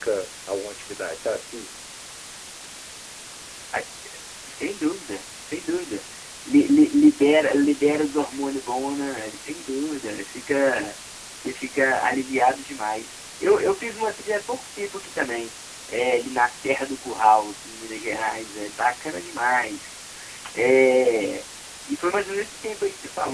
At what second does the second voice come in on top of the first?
none

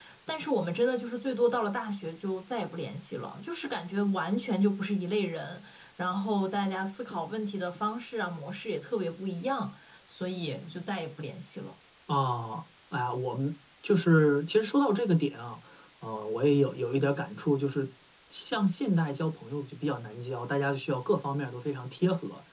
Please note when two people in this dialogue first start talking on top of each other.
none

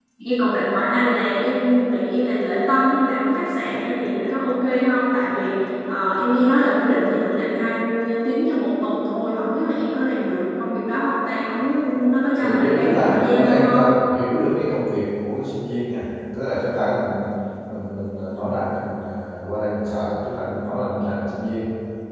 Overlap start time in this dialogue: 12.4 s

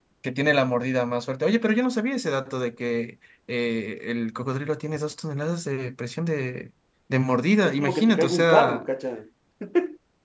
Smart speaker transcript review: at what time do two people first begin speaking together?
7.6 s

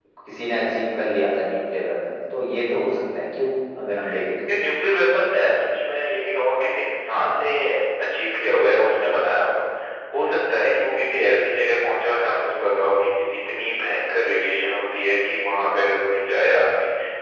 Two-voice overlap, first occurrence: none

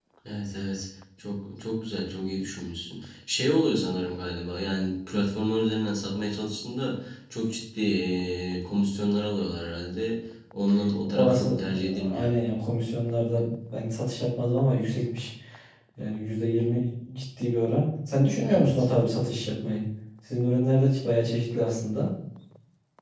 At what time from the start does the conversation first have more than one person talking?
11.1 s

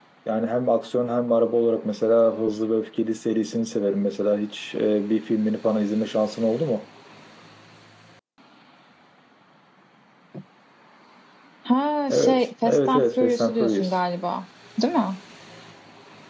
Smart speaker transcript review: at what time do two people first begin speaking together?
12.1 s

